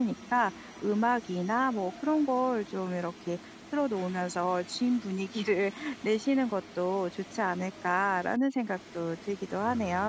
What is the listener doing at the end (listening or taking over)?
taking over